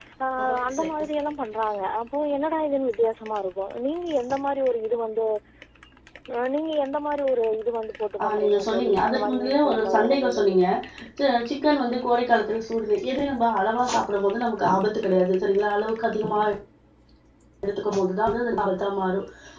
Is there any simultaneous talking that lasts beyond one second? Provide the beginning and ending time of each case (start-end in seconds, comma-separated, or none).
8.2-10.6